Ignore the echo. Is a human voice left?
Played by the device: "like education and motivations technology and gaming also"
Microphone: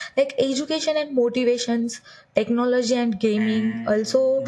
Yes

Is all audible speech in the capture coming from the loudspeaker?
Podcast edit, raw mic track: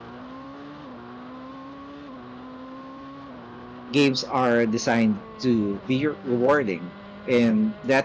No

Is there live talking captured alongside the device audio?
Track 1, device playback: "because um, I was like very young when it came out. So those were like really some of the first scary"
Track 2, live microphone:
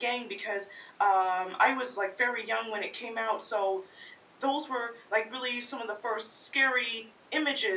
No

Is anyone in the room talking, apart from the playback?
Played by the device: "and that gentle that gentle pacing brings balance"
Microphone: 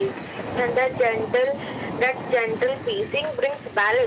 No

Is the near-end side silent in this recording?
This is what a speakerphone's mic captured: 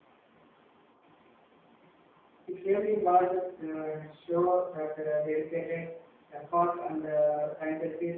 Yes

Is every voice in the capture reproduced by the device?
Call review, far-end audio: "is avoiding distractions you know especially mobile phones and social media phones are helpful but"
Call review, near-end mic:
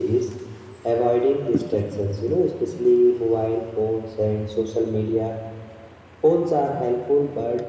Yes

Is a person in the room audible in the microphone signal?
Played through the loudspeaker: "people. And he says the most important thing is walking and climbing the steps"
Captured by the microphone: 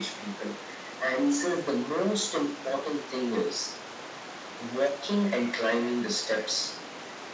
No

